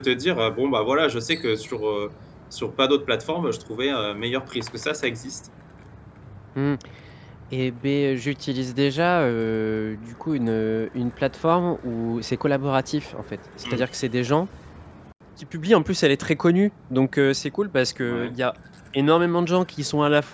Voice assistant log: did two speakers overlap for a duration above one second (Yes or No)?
No